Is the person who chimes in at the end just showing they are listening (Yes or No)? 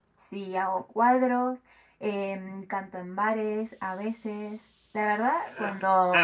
No